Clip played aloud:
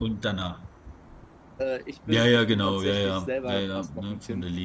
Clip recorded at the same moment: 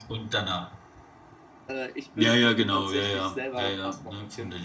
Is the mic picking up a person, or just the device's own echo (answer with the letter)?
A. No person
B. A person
A